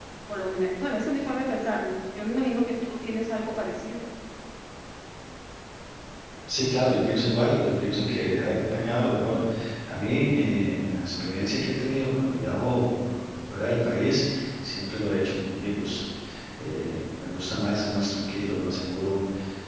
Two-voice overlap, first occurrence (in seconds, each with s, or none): none